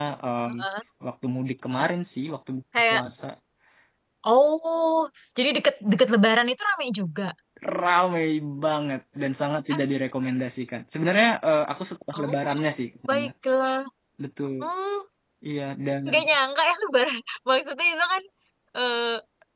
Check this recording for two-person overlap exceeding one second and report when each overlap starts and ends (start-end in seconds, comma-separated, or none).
none